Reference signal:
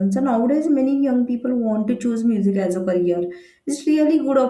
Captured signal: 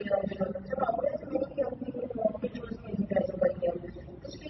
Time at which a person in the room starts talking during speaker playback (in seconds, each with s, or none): none